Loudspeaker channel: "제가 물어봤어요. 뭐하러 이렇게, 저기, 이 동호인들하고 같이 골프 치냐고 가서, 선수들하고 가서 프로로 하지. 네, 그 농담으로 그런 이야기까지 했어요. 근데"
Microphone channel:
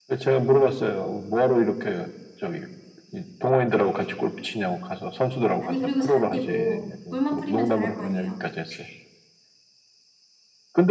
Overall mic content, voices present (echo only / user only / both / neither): both